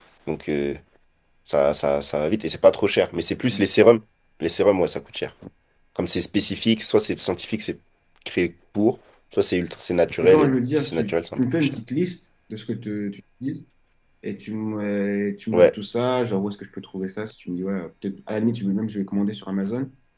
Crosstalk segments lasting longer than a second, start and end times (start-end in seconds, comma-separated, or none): 10.2-11.7